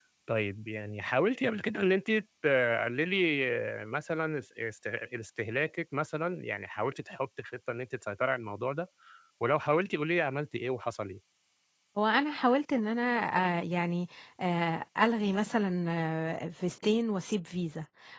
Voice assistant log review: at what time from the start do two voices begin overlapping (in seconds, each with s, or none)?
none